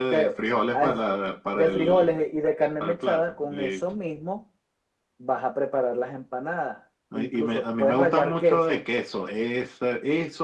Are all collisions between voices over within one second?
No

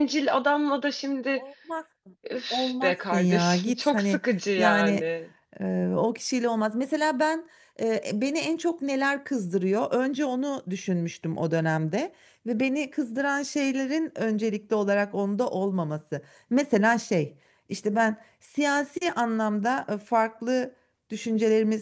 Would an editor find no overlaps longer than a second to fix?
No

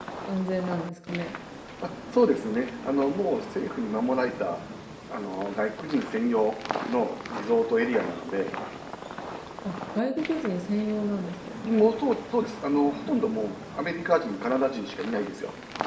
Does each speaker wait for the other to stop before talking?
Yes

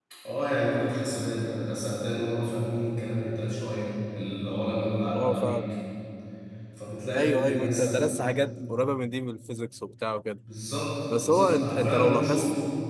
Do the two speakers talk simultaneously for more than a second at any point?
Yes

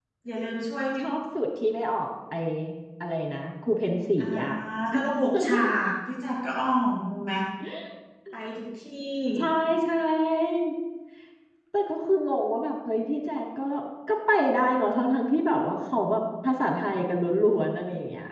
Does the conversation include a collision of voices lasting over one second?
No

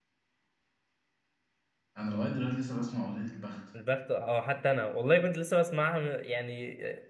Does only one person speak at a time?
Yes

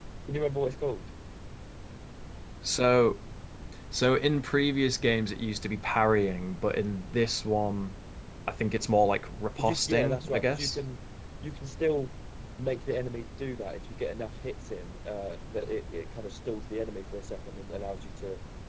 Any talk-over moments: Yes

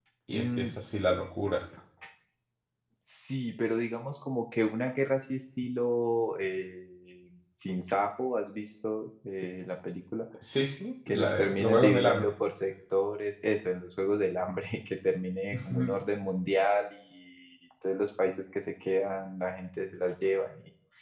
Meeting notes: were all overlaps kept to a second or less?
No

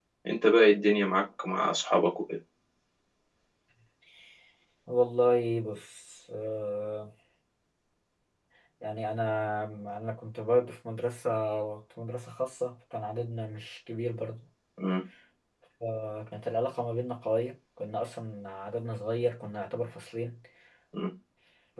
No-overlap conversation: Yes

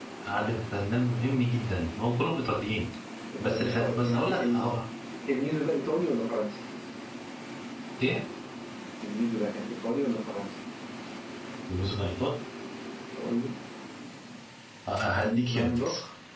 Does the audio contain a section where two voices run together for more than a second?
Yes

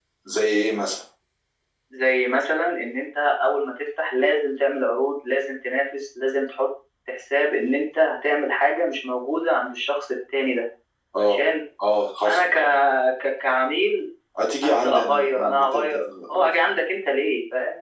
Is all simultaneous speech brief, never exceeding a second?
No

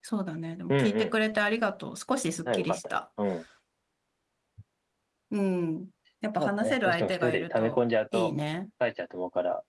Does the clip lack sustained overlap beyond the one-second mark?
No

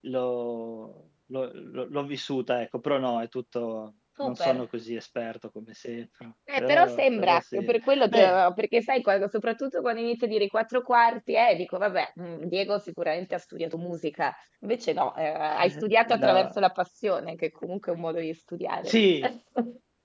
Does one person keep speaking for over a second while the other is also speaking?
Yes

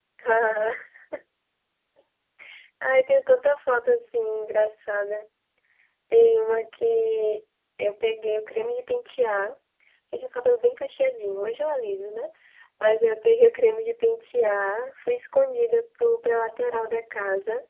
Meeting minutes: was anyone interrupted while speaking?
No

